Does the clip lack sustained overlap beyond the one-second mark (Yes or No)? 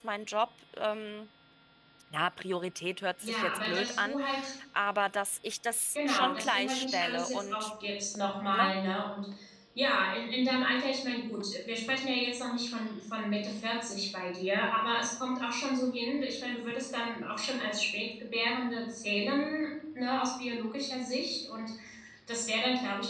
No